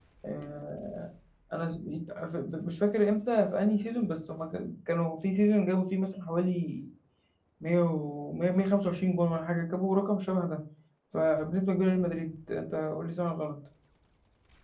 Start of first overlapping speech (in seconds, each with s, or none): none